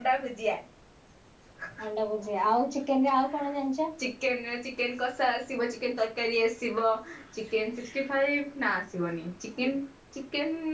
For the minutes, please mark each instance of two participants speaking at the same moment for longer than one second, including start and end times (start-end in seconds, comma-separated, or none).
none